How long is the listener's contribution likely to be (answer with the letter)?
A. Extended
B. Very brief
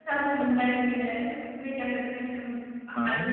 B